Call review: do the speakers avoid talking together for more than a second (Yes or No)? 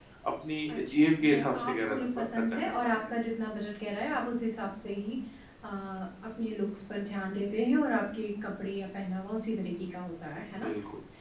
No